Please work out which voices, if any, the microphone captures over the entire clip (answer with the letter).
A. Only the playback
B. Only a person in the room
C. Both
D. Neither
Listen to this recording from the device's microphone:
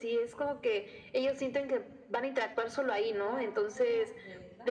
C